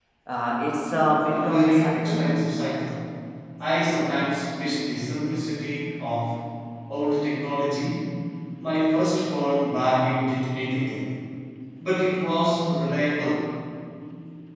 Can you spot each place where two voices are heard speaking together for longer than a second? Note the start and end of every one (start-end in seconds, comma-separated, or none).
0.9-2.2